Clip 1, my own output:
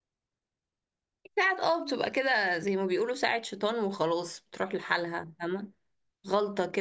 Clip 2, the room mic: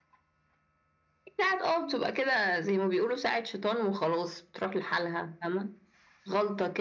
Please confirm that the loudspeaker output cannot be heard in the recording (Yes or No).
No